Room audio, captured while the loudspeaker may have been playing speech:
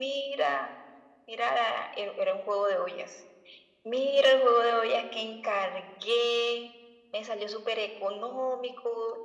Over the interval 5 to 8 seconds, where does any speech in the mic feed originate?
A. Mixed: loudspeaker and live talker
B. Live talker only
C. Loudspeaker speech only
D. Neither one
C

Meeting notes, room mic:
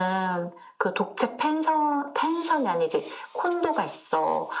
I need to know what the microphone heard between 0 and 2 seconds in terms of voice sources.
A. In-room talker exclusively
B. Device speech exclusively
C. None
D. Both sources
B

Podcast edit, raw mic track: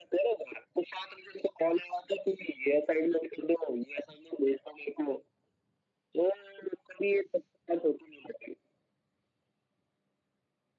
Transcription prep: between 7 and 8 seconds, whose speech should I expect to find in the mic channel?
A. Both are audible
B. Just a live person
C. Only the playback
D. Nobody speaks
C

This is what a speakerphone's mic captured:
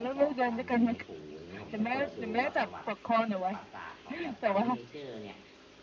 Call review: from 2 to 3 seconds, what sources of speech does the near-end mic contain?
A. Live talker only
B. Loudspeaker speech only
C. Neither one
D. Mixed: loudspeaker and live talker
D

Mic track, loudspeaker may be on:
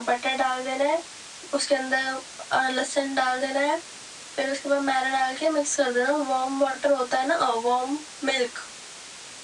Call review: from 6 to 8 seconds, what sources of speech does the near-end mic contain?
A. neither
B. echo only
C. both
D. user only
B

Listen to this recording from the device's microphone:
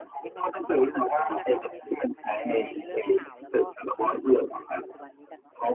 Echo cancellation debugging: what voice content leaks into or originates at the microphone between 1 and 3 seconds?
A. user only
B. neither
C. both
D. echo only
C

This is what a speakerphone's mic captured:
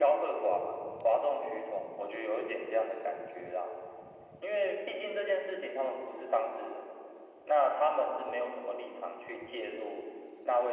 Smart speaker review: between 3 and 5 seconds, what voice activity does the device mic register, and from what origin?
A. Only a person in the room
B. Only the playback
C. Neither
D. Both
B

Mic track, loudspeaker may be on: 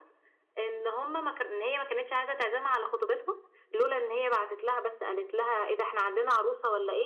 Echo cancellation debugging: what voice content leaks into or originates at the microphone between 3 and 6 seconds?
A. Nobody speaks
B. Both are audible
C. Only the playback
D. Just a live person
C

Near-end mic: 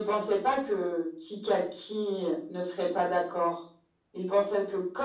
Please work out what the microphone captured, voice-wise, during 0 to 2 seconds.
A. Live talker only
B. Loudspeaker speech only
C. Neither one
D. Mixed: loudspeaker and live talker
B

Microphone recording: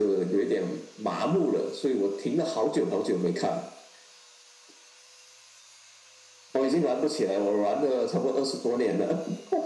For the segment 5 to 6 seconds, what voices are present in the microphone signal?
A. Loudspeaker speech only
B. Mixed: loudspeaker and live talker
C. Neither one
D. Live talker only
C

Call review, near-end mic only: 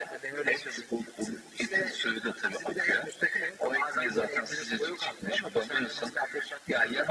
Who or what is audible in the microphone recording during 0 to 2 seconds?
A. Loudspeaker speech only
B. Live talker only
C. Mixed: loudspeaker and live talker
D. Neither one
A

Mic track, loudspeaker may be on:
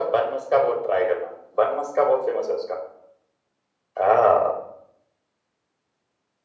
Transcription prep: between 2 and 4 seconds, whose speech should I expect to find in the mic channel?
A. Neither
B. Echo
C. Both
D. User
B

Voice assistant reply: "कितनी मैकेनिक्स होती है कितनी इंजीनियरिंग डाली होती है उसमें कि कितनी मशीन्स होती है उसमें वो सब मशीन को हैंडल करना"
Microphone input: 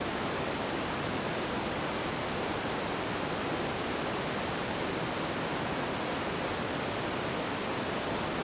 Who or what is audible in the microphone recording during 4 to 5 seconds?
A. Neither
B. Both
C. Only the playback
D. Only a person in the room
A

